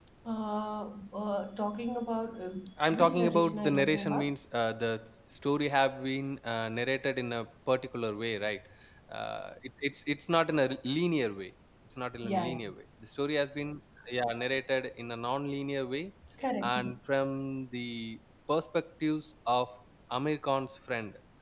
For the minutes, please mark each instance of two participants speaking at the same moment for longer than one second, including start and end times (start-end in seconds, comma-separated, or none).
2.9-4.3